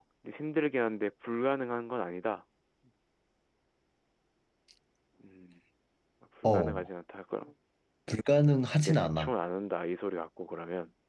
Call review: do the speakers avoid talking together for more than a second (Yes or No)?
Yes